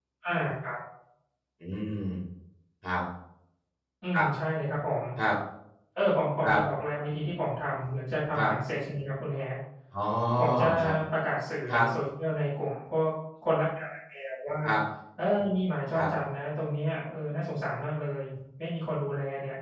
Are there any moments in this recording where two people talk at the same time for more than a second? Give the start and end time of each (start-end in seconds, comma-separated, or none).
none